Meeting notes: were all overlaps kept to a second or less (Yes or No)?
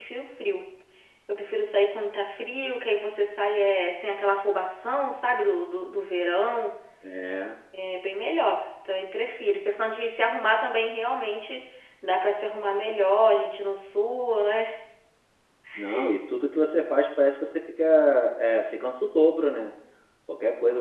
Yes